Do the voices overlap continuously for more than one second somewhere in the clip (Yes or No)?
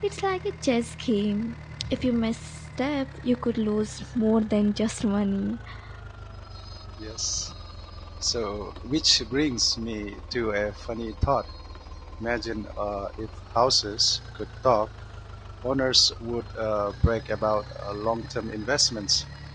No